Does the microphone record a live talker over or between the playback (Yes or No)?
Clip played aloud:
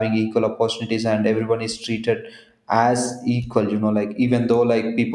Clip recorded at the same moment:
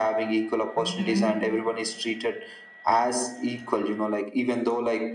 Yes